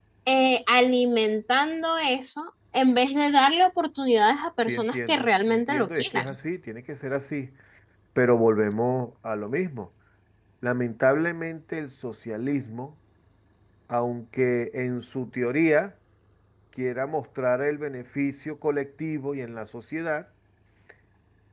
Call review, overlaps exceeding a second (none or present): present